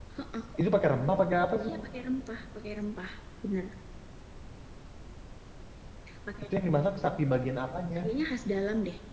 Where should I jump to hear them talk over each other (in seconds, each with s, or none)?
none